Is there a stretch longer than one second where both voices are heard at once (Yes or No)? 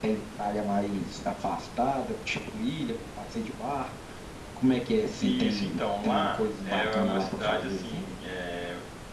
Yes